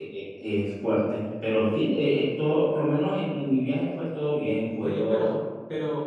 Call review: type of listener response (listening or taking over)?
taking over